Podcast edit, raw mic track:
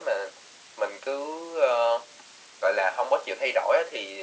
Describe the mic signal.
echo only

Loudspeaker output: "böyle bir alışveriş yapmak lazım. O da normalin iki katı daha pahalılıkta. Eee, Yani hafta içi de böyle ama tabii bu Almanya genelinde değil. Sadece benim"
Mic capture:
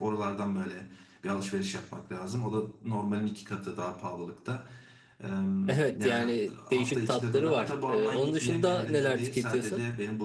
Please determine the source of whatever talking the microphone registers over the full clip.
both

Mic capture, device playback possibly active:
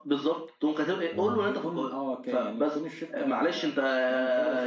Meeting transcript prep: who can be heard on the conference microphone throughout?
both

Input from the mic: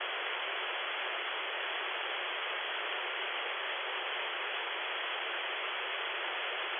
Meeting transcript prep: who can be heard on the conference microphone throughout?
neither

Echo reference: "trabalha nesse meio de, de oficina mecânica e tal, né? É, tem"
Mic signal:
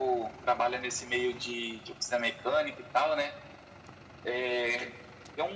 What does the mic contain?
echo only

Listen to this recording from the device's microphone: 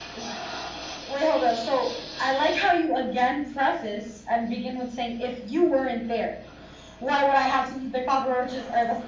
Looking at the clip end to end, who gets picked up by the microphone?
echo only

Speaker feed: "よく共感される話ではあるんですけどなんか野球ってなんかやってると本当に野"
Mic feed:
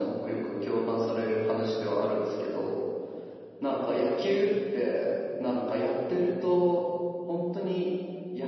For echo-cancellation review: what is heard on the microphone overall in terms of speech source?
echo only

